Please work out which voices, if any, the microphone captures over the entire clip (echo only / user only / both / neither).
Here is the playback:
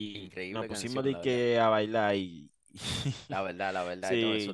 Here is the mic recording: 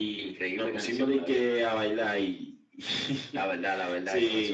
echo only